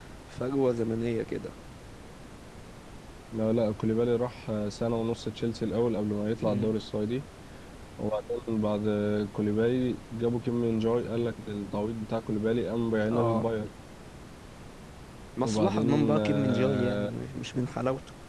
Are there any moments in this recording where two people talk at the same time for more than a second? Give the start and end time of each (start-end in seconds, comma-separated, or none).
15.4-17.1